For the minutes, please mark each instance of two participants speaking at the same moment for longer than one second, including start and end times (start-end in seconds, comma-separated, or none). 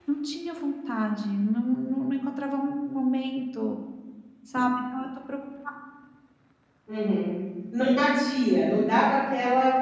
none